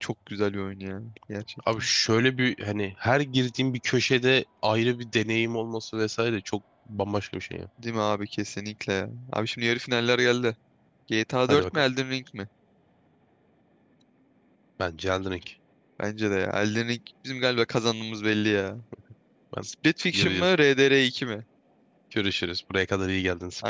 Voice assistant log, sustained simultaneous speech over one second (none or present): none